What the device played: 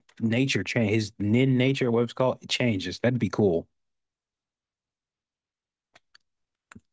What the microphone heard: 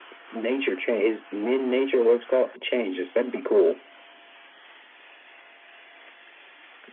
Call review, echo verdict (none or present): present